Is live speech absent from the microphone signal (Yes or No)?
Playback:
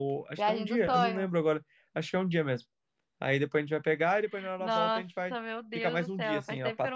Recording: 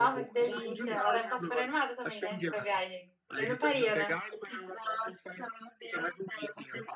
No